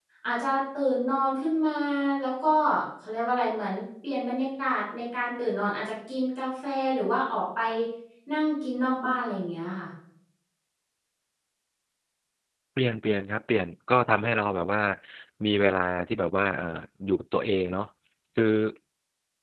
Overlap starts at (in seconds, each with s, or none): none